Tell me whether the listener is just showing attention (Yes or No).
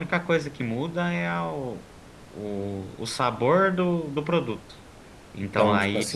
No